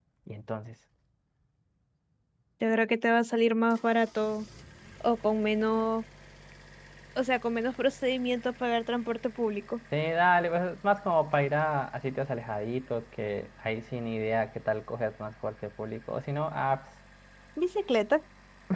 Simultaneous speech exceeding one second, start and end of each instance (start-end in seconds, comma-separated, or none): none